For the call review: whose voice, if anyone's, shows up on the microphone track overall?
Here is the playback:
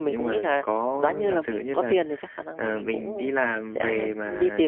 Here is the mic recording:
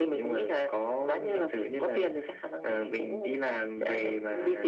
echo only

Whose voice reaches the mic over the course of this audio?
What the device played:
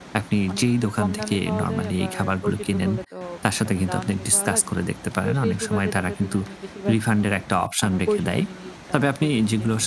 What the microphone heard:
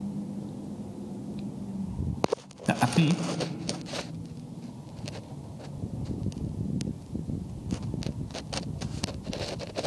user only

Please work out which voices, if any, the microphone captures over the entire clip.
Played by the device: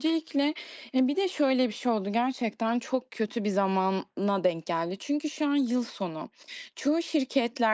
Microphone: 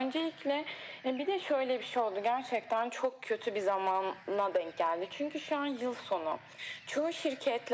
echo only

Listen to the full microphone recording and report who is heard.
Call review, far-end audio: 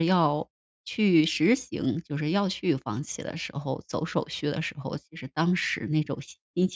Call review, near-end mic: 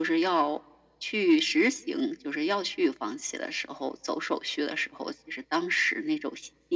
echo only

